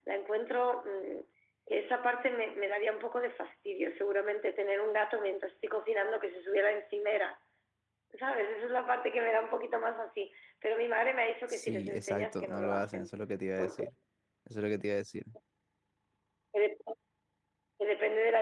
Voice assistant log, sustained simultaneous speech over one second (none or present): present